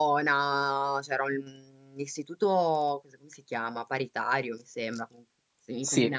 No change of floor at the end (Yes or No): Yes